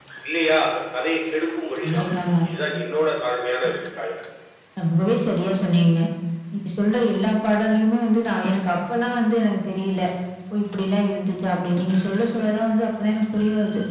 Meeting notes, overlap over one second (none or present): none